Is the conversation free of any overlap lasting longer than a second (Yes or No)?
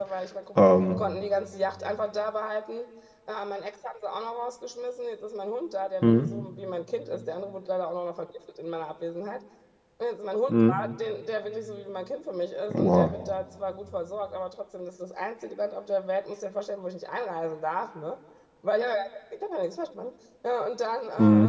Yes